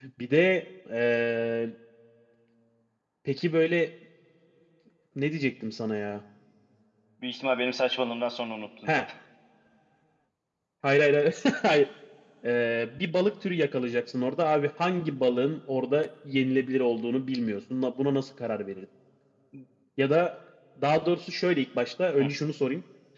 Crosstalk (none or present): none